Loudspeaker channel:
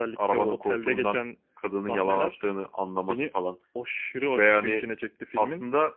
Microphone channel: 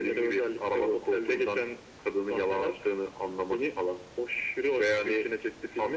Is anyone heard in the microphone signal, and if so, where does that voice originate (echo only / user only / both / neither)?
echo only